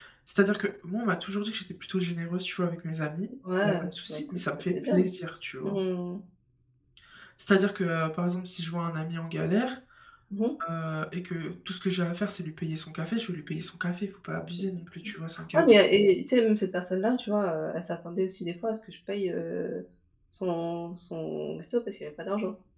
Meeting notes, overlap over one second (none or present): present